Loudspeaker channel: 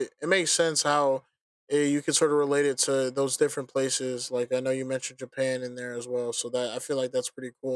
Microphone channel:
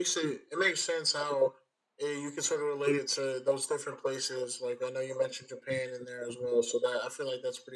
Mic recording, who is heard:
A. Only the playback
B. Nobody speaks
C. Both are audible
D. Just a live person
A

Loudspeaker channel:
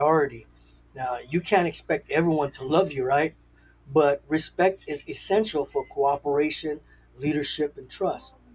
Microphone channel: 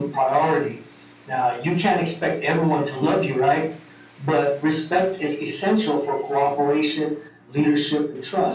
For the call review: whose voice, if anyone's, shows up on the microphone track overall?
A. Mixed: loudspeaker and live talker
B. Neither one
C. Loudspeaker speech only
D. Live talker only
C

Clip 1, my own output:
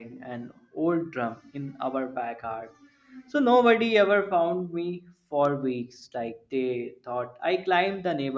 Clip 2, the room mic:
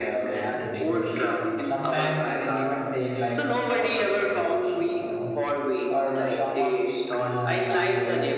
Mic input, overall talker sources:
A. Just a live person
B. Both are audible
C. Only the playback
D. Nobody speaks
B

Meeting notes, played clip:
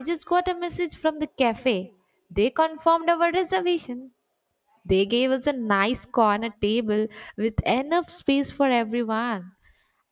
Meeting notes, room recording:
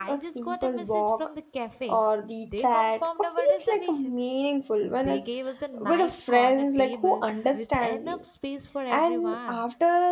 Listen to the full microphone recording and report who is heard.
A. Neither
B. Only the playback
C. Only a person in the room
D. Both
D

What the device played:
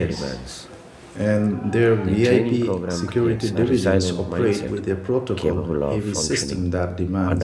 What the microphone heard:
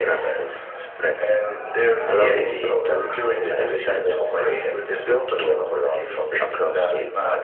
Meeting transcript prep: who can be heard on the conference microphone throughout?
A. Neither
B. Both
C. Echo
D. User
B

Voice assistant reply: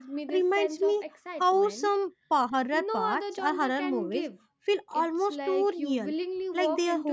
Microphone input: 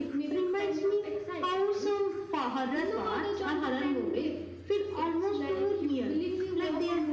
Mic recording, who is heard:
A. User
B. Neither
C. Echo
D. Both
C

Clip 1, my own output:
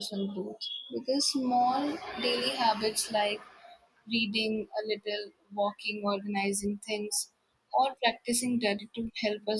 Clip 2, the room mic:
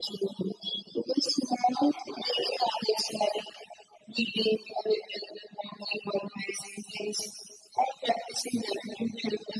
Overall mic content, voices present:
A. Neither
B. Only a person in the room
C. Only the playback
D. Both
C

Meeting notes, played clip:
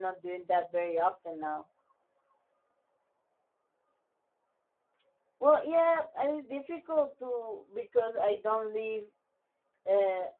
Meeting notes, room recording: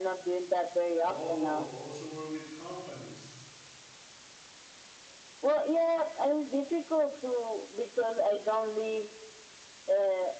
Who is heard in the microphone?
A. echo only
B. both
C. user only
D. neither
B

